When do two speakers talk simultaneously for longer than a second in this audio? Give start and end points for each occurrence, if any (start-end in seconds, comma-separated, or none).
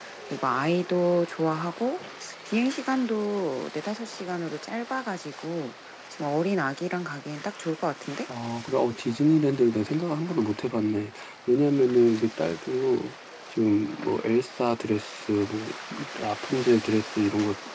none